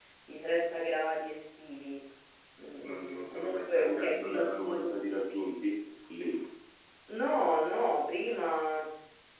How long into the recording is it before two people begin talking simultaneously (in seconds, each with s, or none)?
2.8 s